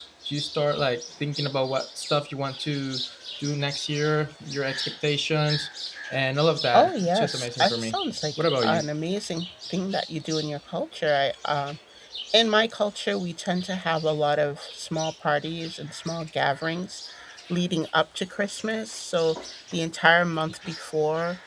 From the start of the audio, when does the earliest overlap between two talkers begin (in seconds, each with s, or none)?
6.7 s